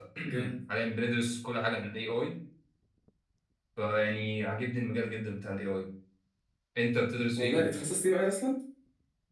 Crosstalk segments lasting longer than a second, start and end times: none

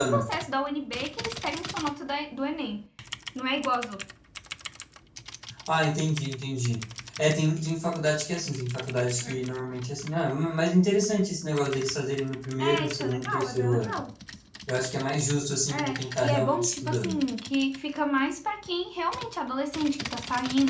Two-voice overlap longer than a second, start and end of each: 12.6-14.0, 15.7-17.2

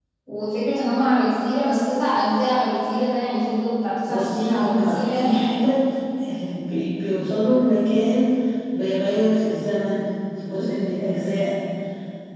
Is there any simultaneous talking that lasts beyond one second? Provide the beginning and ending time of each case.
4.1-5.3

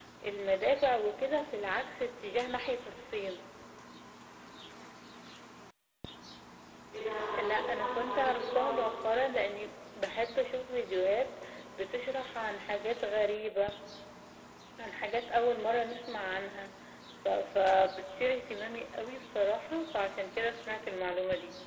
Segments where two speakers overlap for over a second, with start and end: 7.3-8.8

